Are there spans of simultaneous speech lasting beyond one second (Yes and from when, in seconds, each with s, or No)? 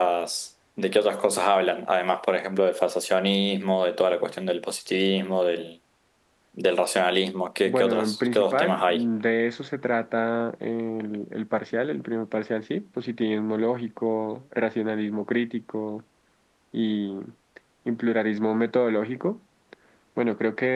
Yes, from 7.6 s